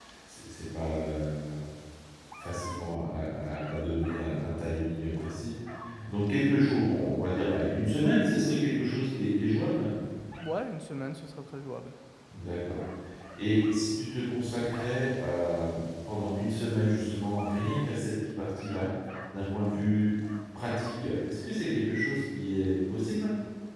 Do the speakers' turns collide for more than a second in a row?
No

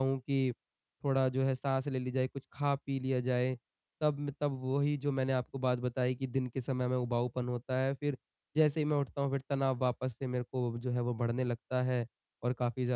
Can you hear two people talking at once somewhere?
No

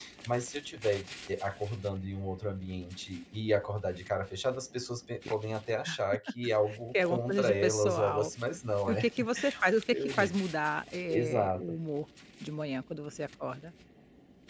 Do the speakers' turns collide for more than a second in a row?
Yes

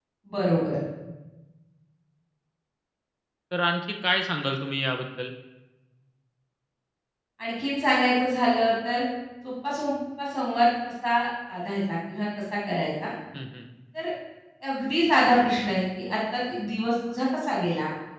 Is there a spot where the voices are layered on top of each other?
No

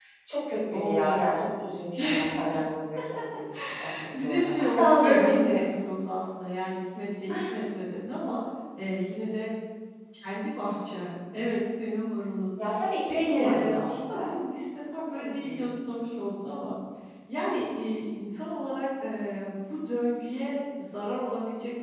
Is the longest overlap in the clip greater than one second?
Yes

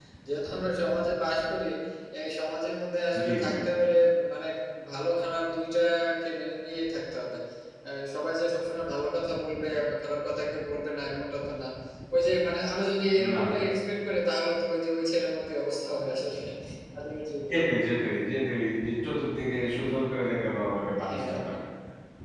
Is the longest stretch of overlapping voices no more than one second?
Yes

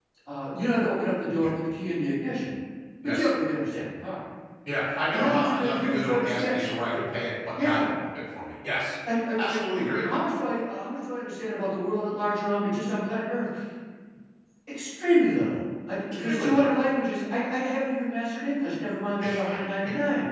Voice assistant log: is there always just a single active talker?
No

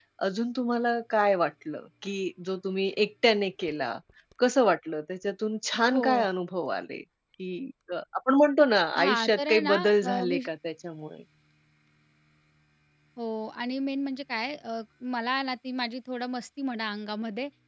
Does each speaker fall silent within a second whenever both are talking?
No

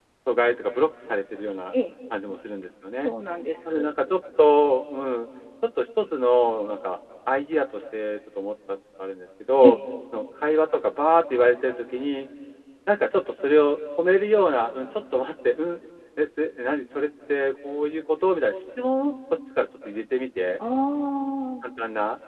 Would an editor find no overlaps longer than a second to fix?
Yes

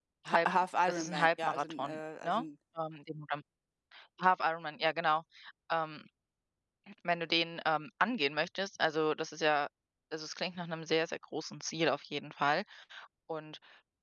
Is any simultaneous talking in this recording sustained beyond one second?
Yes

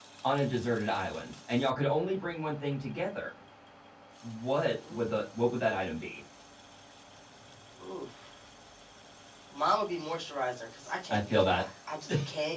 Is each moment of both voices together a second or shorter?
Yes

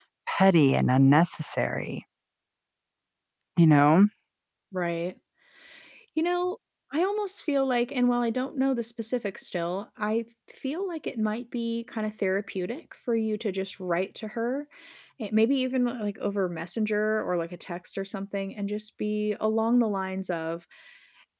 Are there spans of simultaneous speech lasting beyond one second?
No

